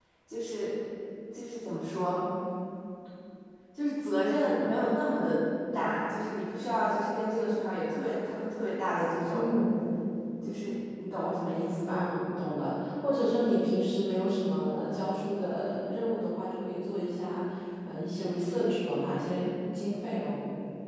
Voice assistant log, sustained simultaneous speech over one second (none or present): none